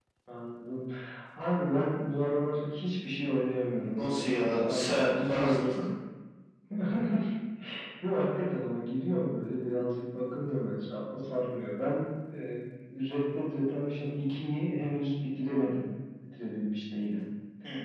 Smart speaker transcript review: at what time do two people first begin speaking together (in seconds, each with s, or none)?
3.9 s